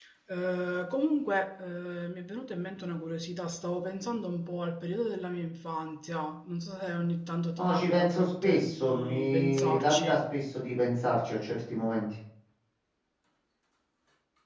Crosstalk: present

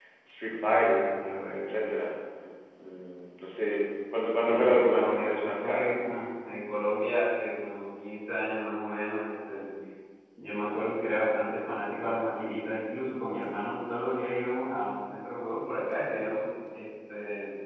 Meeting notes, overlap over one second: present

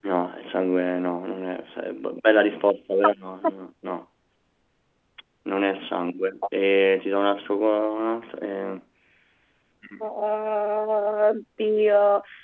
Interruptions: none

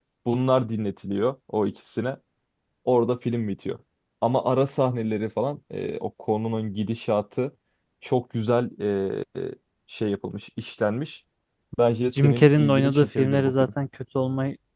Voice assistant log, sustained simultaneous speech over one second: present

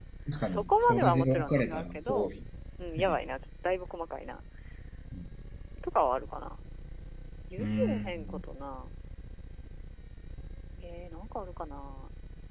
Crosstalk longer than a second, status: present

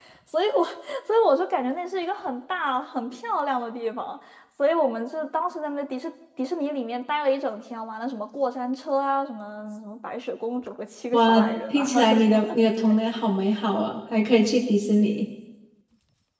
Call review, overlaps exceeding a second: present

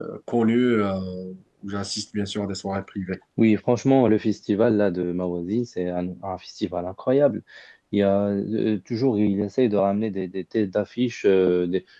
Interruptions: none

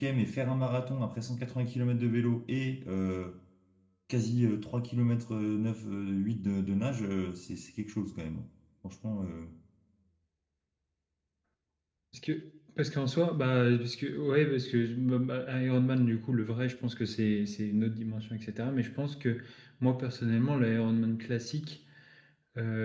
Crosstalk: none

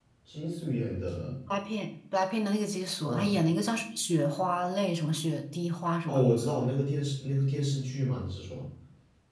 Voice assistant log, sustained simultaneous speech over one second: none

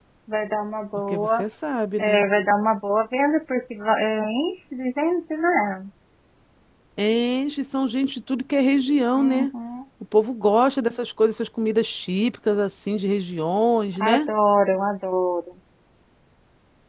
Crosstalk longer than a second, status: none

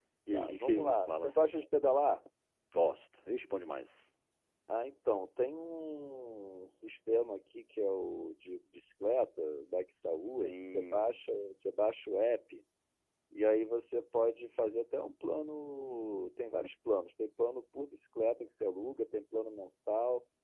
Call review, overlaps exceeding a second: present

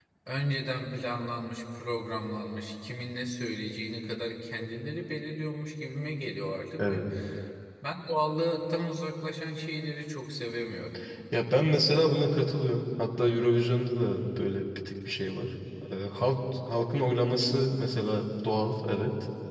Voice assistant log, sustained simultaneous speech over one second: none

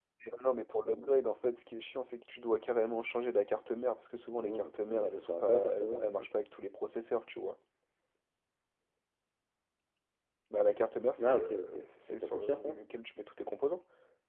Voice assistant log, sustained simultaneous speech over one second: present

